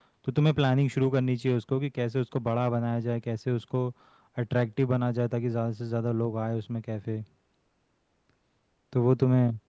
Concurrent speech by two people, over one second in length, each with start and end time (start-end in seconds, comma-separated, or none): none